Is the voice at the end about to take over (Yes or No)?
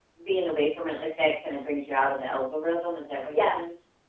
Yes